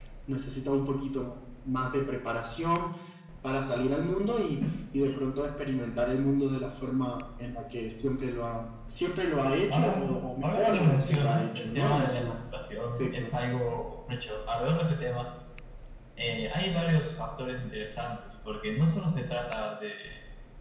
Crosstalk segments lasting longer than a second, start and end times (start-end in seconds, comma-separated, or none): 10.4-12.4